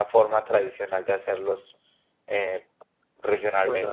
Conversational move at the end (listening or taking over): taking over